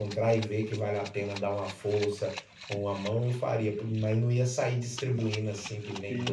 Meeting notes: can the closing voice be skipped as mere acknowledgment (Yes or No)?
No